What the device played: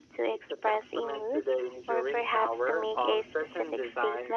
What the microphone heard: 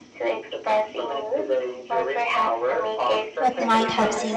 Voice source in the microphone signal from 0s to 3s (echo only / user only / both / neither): echo only